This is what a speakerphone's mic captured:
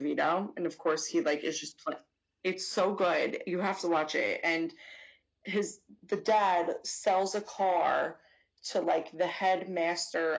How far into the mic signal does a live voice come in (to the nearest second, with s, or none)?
none